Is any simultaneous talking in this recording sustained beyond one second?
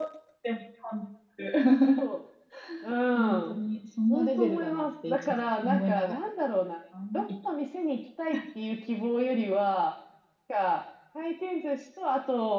Yes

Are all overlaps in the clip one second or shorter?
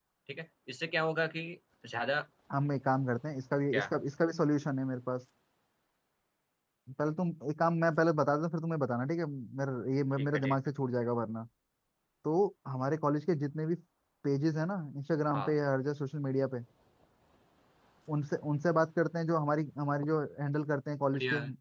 Yes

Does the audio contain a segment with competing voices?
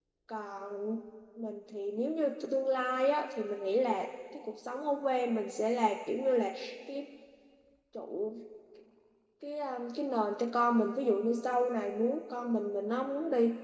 No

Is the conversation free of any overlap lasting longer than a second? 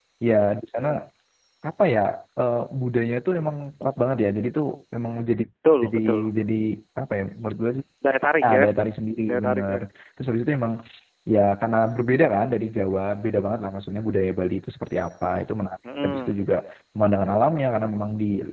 Yes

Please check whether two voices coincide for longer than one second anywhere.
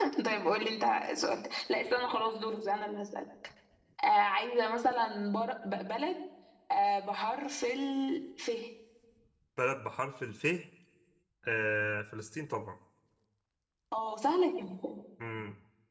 No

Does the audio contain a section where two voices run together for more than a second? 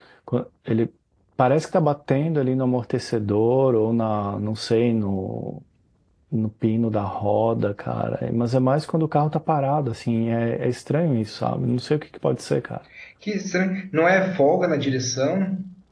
No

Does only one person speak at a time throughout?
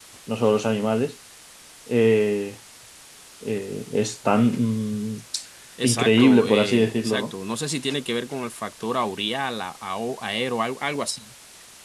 No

